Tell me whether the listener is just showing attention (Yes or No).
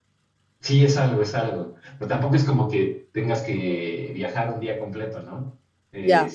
Yes